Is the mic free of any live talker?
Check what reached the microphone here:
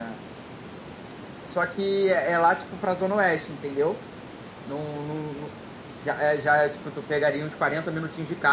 Yes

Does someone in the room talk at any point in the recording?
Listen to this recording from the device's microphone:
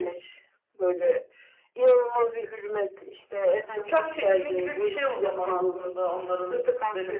Yes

